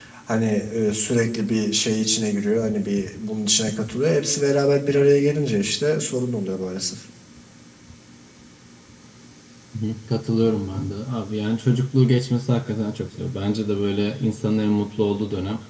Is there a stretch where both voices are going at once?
No

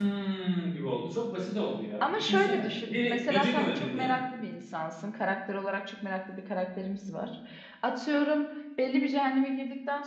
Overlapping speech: Yes, from 2.0 s

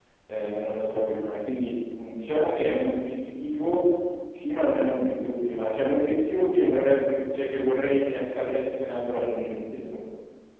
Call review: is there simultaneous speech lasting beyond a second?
No

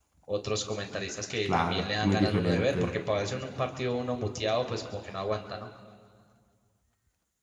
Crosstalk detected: Yes, from 1.4 s

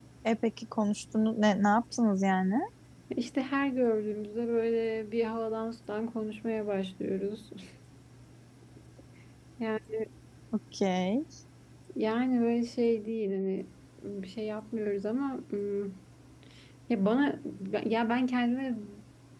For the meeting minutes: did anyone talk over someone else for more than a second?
No

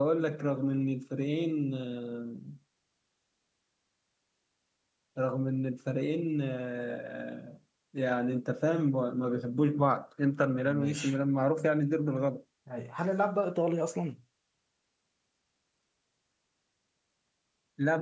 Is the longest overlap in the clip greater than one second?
No

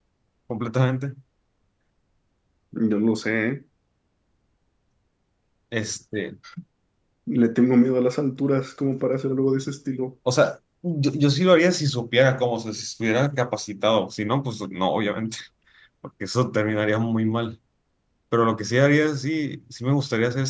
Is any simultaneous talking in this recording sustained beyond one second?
No

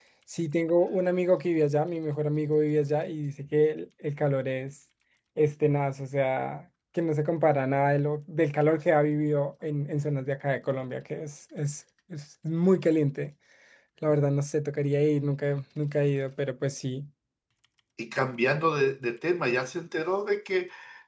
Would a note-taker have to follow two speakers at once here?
No

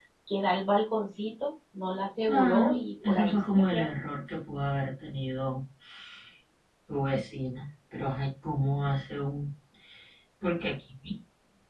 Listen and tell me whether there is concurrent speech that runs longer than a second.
Yes, from 2.3 s

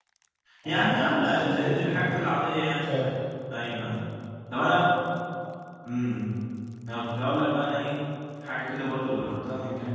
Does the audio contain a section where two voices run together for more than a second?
Yes, from 0.6 s

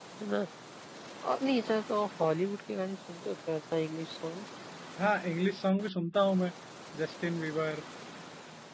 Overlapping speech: No

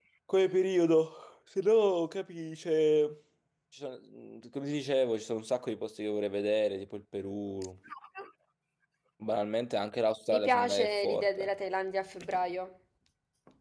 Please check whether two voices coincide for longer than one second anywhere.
Yes, from 10.3 s

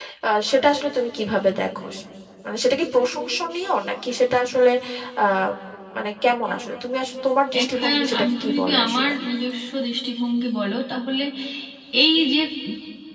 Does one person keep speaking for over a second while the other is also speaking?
Yes, from 7.5 s

